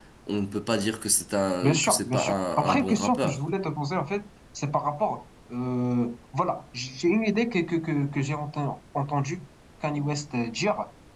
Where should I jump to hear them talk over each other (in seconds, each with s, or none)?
1.6 s